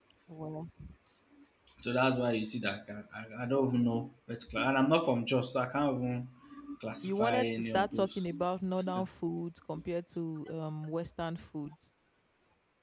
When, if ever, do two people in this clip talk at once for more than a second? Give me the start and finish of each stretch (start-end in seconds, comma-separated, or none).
7.0-8.3